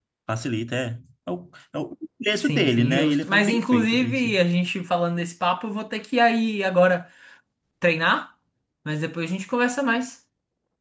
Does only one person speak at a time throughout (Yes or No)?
No